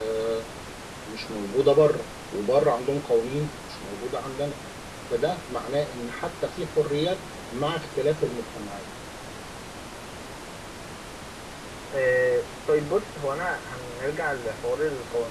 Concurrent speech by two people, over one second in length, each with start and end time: none

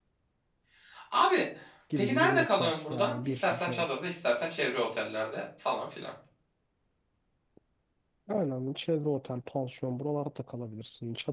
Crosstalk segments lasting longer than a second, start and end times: 2.0-3.8

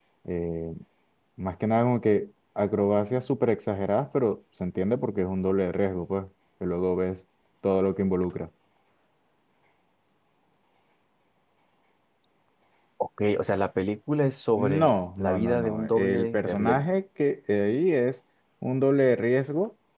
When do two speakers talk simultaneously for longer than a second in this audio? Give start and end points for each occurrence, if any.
14.6-16.9

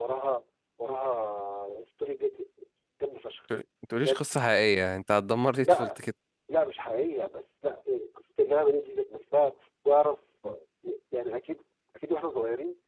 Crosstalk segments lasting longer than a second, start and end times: none

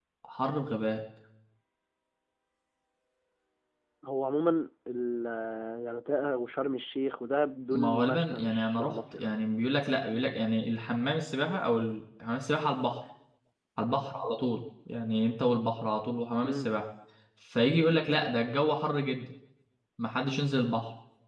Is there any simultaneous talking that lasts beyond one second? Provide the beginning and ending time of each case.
7.7-9.2

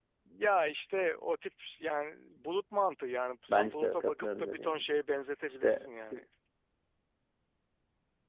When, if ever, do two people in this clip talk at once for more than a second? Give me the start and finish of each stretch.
3.5-4.9

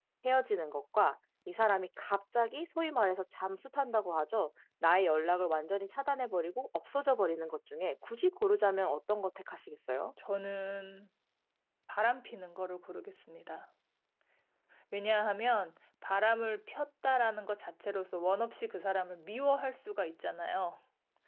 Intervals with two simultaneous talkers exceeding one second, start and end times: none

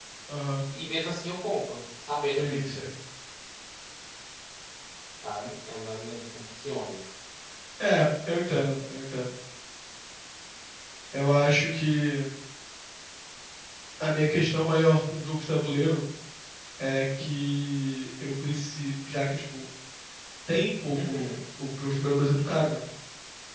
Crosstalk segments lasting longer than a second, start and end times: none

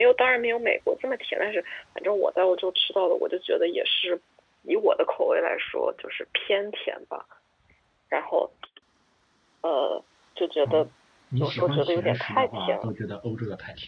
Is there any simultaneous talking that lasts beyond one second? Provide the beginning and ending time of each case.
11.4-12.9

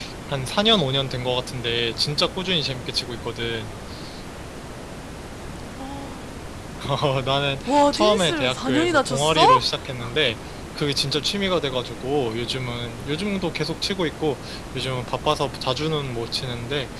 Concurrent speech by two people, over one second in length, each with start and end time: 7.6-9.5

